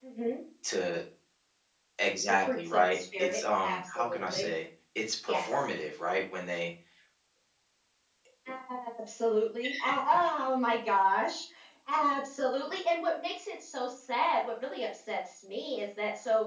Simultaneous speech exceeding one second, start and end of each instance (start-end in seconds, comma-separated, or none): 2.3-4.5